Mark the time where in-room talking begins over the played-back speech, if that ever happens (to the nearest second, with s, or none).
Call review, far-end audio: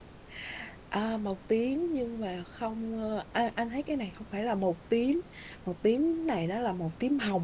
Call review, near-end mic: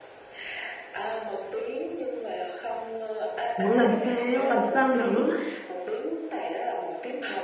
4 s